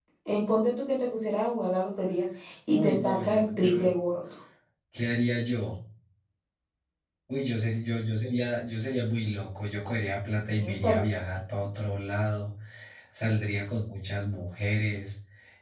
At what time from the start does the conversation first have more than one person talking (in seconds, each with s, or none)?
2.7 s